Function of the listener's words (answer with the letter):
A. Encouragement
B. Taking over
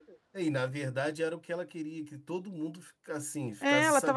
B